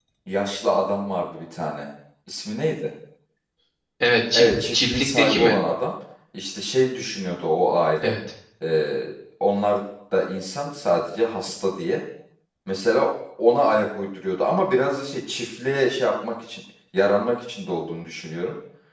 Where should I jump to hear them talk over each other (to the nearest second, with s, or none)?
4 s